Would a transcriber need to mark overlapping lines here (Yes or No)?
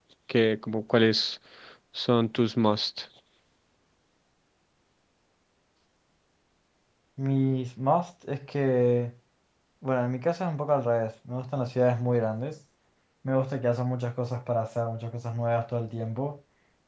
No